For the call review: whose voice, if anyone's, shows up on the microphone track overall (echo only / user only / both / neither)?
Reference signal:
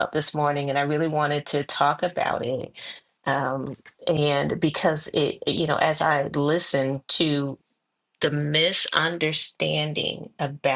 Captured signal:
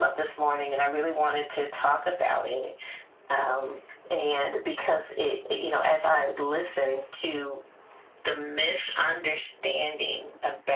echo only